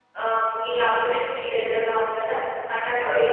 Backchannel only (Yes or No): No